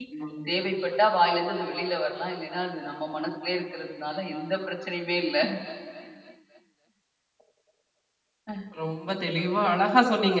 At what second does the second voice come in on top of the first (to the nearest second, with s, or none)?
none